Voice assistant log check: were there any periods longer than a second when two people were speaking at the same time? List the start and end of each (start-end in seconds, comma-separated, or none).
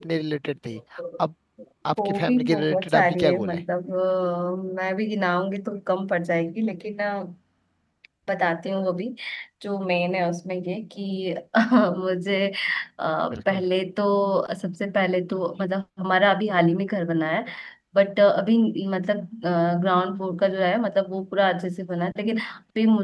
2.0-3.6